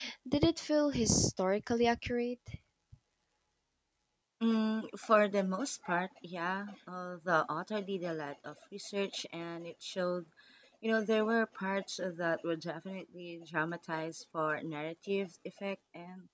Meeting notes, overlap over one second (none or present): none